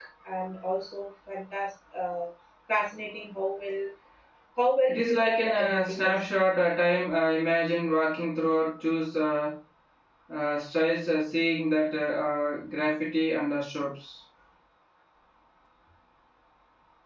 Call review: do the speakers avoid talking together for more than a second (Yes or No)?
No